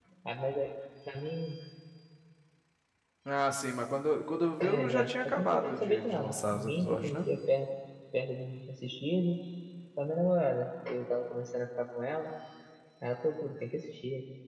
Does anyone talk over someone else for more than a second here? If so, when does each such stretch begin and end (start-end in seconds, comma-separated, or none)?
4.6-7.2